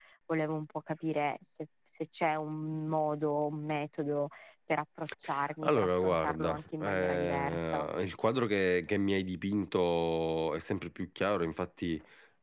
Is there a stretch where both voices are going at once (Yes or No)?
Yes